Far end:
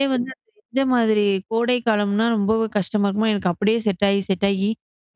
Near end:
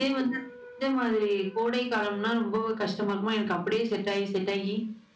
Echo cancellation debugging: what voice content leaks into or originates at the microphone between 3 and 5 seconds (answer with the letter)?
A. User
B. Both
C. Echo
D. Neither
C